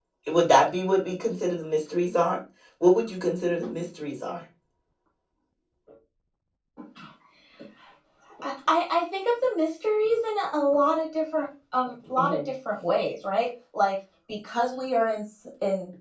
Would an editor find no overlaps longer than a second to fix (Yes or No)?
Yes